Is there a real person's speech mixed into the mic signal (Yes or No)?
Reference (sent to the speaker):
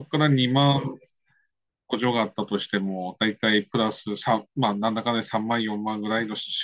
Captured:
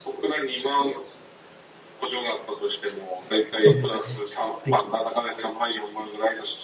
Yes